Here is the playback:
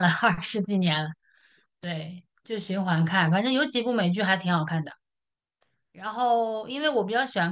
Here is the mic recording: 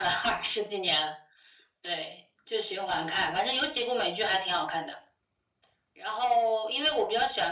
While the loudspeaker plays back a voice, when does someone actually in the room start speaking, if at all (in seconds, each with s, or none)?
none